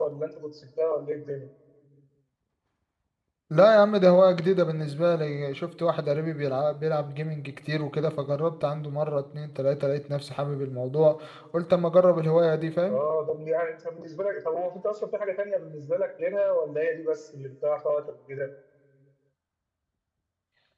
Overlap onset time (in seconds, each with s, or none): none